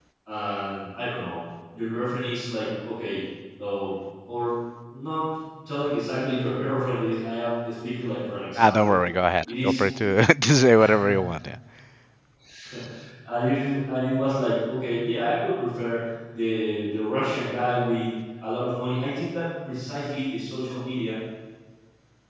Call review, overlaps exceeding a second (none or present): none